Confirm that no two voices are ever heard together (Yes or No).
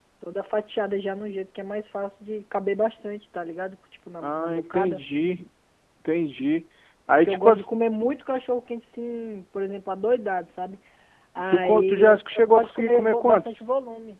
No